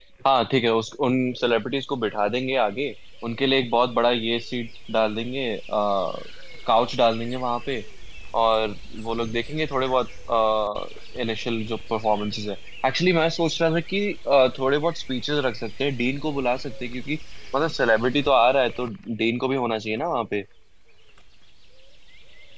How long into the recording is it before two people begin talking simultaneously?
none

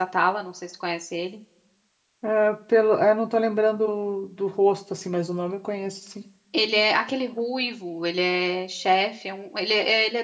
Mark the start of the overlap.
none

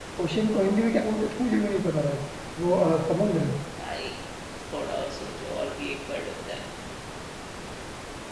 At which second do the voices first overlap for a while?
none

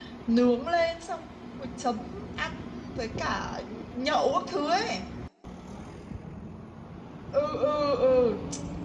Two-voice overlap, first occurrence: none

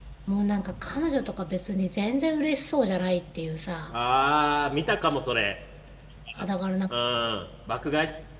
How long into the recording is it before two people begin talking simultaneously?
none

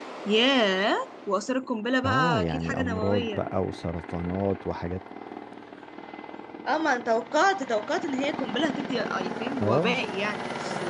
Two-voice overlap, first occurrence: 2.0 s

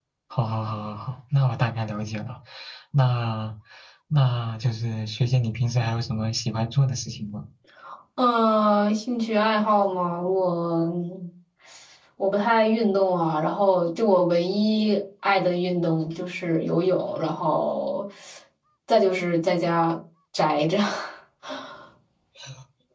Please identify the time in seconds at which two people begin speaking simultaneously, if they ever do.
none

